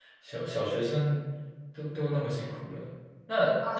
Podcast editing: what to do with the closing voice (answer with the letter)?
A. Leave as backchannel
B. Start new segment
B